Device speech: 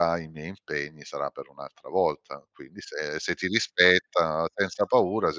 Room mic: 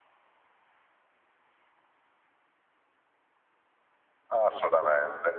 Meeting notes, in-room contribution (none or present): present